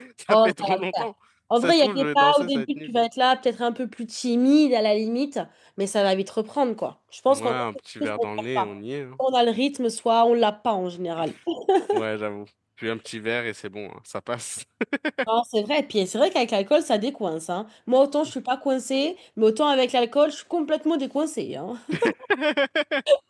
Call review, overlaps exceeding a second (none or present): present